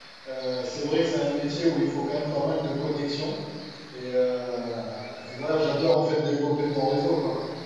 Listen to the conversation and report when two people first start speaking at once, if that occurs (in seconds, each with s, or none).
none